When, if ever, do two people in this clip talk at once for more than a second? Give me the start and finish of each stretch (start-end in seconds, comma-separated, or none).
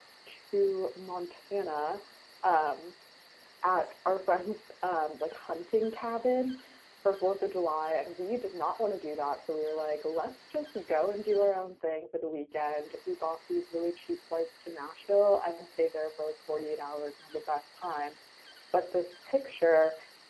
none